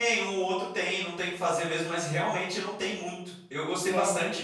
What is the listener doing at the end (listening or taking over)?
listening